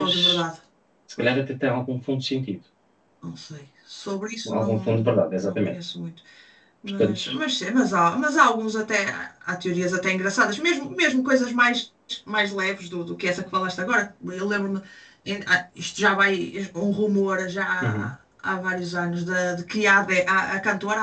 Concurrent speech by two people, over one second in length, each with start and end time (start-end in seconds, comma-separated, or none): 4.5-5.7